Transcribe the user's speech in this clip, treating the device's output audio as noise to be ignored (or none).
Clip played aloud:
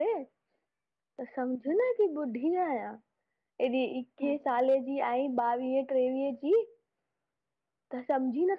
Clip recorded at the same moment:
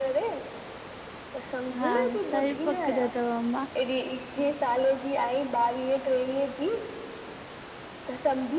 हा सही पकड़ियो थव अम्मा।